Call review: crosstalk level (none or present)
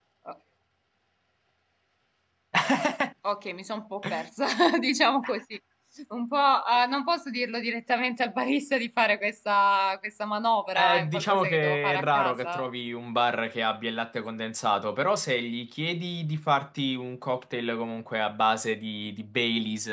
present